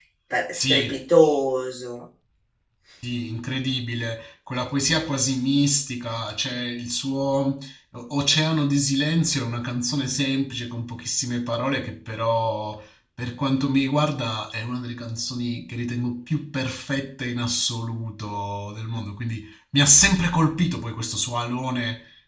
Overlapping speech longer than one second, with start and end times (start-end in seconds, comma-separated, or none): none